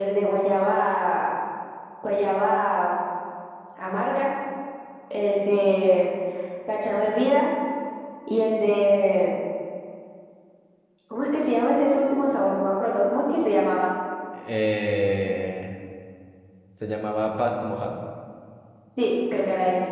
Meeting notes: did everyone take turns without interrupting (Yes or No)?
Yes